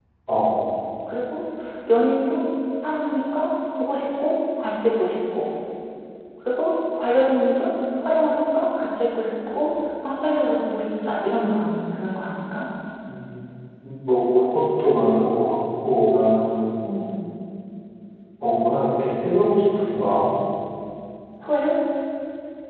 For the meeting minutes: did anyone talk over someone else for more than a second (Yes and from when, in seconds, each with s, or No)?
No